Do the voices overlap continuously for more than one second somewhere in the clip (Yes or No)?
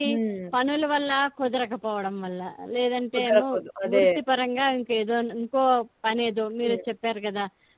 No